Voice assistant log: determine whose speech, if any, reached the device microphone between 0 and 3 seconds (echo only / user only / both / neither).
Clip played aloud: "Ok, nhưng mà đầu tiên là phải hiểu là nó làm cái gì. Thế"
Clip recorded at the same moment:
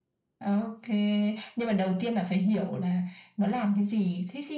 echo only